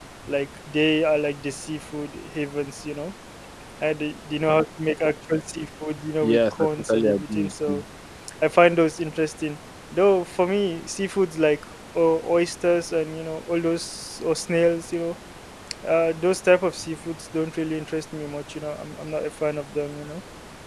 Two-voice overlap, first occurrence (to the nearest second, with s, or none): 6 s